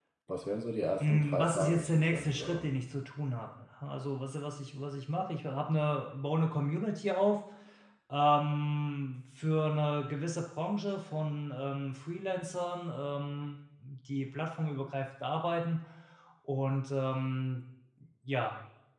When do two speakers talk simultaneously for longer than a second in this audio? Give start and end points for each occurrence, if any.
1.0-2.7

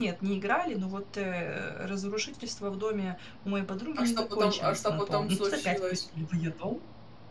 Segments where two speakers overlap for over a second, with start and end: 4.0-6.0

